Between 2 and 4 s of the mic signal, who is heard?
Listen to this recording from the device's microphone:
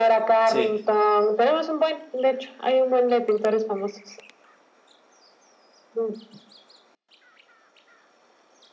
echo only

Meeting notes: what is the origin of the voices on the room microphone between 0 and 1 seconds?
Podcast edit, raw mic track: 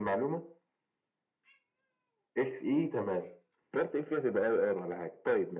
echo only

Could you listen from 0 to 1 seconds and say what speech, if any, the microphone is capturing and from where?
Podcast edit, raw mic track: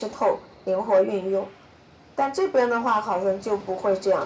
echo only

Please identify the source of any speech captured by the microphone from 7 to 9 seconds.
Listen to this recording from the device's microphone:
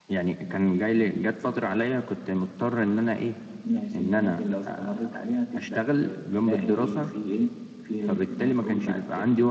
echo only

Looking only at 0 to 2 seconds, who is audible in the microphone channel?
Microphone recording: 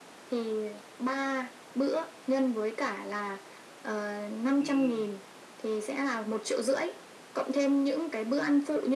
echo only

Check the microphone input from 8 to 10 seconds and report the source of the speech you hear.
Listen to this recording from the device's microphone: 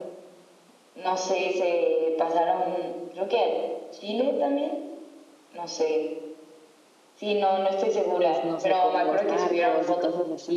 both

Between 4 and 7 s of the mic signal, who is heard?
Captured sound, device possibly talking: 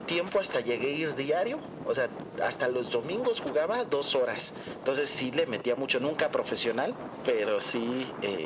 echo only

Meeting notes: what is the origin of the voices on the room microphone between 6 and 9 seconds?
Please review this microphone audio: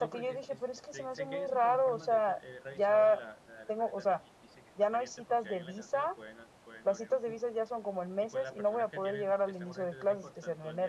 both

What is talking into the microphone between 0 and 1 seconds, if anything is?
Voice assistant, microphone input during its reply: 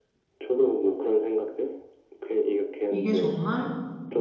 echo only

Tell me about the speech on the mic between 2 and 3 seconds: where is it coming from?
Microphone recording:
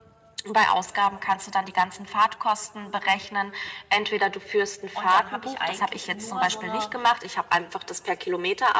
echo only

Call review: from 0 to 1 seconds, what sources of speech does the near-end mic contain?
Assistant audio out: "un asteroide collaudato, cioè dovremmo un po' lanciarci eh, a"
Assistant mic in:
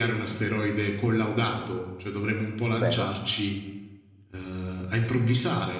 echo only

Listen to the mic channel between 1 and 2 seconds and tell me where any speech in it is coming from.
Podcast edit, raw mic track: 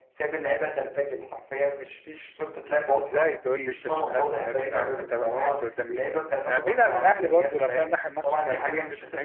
echo only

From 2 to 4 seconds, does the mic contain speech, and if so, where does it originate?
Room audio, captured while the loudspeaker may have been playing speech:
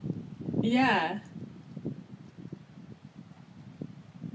neither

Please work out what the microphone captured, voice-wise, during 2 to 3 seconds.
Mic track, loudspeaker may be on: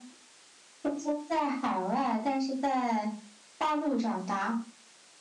echo only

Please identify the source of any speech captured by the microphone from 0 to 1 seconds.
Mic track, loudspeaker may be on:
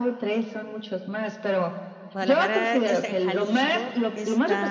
echo only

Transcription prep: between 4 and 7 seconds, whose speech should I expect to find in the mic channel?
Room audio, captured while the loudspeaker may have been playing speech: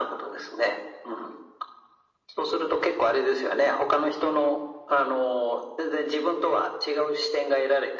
echo only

